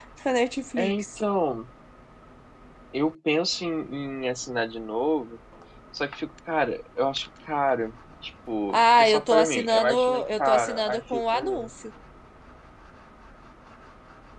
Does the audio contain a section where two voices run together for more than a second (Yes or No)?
Yes